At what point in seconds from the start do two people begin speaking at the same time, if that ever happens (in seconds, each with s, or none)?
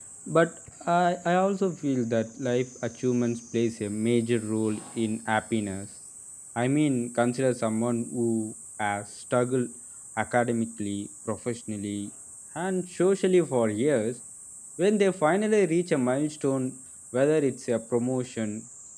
none